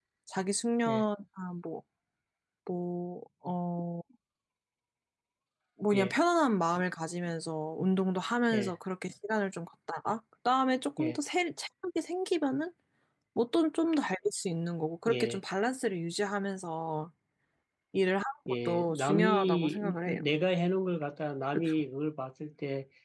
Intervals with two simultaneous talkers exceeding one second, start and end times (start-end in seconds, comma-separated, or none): 18.5-20.2